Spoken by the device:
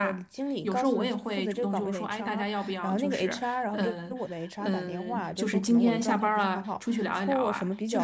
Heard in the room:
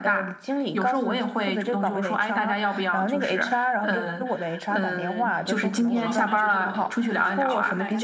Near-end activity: present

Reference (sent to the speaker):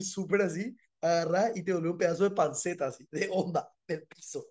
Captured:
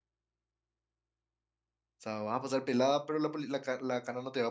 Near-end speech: present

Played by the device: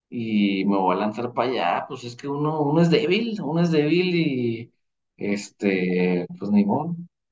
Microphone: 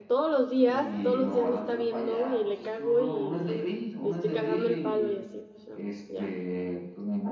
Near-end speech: present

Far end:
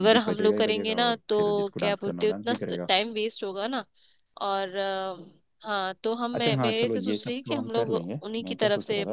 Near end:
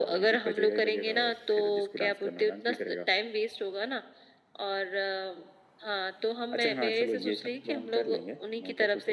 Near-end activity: none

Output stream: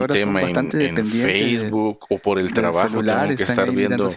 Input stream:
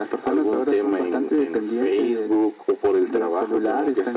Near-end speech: none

